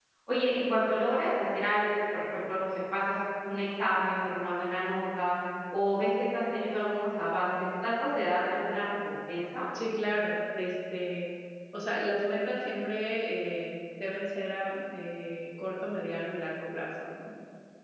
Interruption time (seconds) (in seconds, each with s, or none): none